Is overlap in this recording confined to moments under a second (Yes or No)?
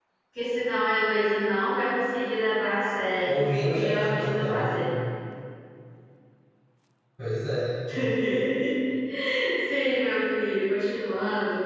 No